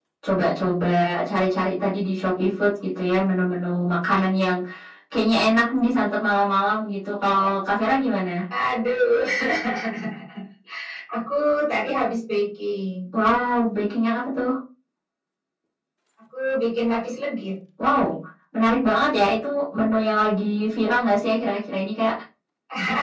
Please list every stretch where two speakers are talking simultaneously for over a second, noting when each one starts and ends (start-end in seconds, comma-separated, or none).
none